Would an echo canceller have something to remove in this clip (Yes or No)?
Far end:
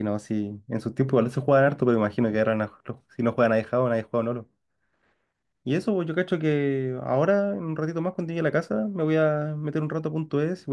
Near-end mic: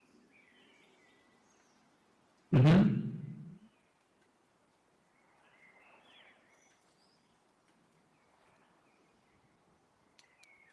No